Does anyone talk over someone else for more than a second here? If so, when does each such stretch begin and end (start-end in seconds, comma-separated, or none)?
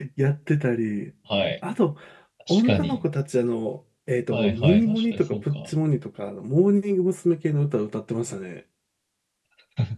4.3-5.6